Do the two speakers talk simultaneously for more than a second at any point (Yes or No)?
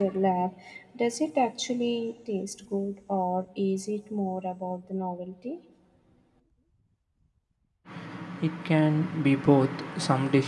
No